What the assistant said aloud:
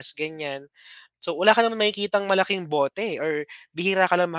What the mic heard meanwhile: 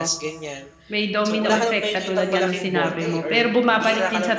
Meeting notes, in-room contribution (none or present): present